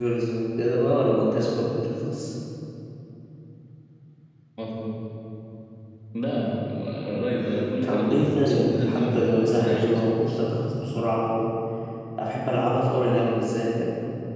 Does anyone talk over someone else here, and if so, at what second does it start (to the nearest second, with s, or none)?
8 s